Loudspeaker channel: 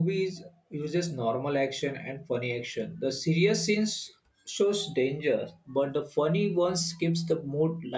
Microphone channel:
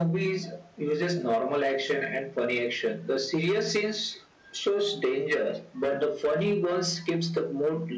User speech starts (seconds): none

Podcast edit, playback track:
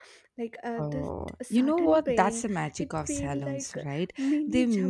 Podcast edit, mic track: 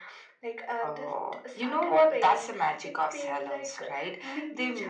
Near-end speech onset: none

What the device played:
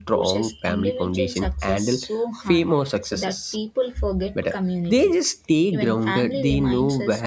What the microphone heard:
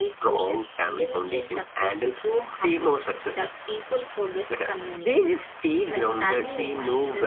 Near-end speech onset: none

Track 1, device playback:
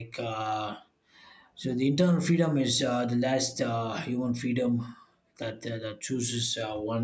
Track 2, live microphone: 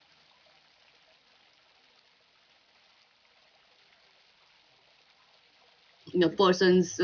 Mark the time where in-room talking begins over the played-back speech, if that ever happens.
6.1 s

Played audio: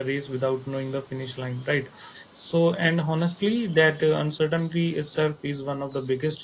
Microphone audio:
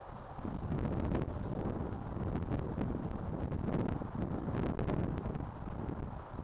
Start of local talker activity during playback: none

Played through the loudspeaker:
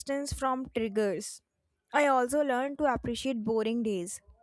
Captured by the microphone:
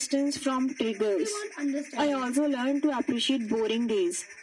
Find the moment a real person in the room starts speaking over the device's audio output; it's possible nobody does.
1.2 s

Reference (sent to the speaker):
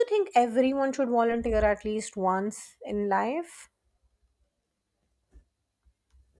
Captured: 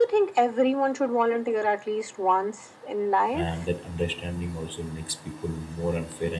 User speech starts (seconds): 3.3 s

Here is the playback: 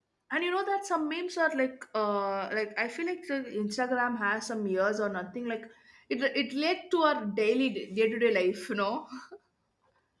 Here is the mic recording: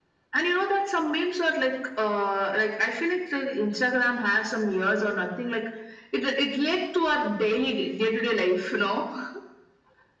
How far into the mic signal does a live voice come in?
none

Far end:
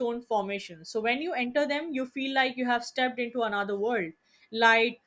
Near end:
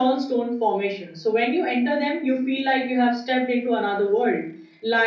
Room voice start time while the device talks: none

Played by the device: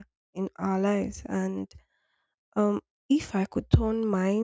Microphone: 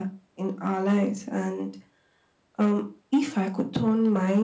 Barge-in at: none

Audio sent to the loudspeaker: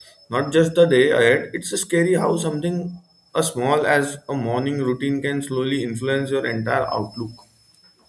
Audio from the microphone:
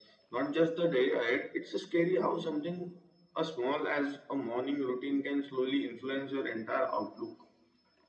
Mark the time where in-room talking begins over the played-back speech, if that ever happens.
none

